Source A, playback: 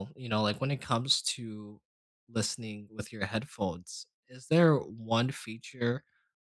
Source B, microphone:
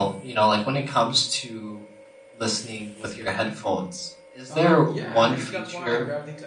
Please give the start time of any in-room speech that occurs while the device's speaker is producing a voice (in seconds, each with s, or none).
4.5 s